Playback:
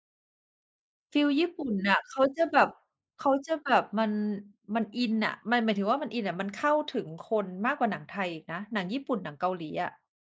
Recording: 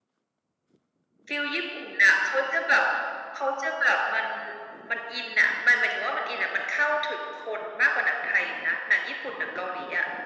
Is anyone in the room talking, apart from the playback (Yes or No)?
No